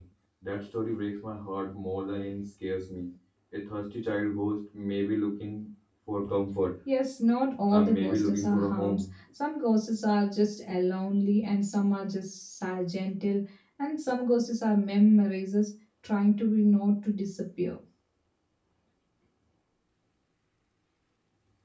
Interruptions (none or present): present